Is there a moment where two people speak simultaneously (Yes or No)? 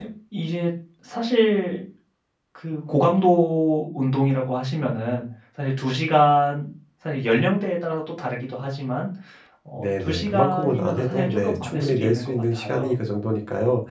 Yes